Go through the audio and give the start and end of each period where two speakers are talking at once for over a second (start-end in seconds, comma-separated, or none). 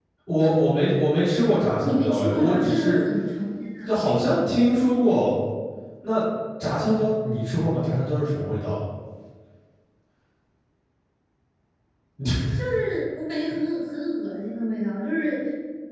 1.8-3.0